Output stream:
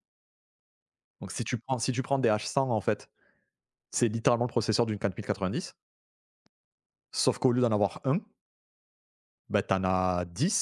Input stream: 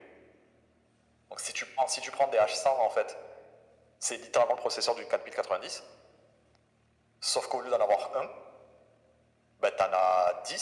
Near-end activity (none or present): none